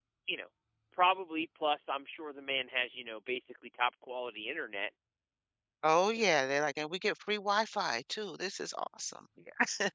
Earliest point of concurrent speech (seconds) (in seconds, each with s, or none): none